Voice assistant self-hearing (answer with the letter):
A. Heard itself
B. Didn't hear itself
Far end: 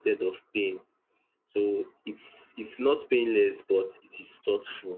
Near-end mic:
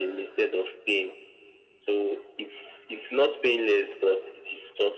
A